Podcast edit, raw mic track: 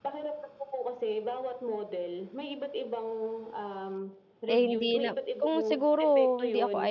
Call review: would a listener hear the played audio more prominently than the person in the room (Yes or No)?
No